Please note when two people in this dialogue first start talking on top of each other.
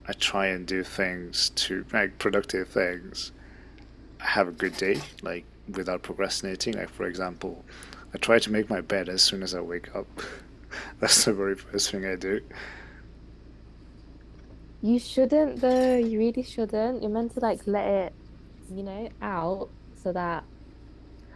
none

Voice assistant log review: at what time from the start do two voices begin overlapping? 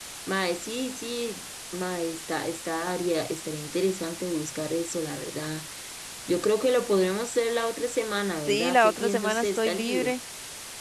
8.5 s

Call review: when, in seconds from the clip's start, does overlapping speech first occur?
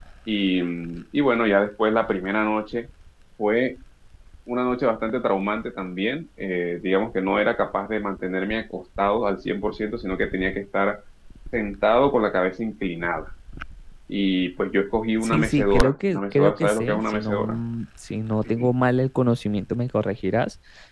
15.2 s

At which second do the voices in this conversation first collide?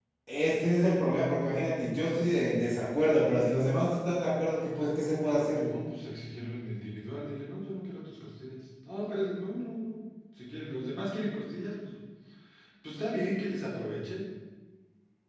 none

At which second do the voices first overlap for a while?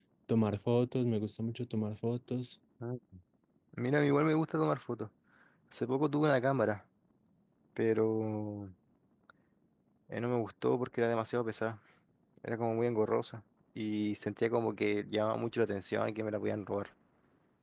none

